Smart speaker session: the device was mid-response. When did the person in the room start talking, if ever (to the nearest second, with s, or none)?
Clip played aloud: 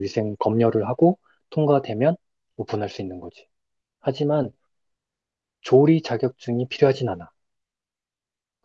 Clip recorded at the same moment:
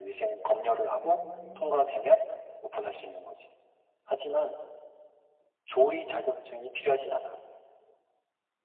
1 s